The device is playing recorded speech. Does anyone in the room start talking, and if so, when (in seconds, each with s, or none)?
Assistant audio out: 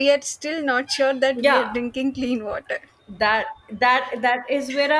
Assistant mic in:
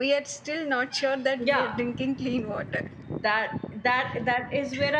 none